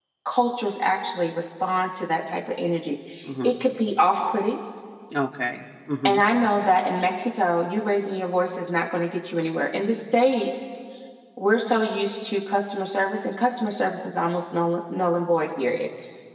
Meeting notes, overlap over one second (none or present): none